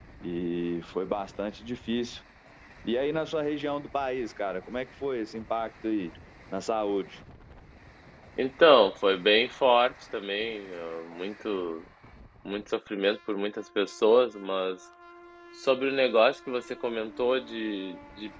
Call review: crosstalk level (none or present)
none